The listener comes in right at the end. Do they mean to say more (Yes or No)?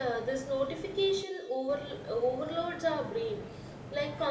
No